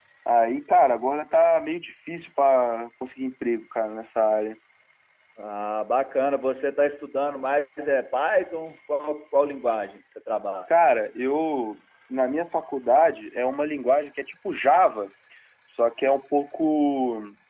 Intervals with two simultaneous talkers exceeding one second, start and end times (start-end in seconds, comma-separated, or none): none